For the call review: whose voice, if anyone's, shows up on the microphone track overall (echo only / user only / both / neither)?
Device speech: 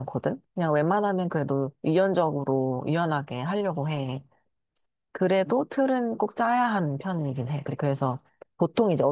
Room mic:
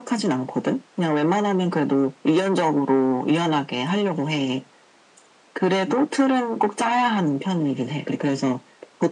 echo only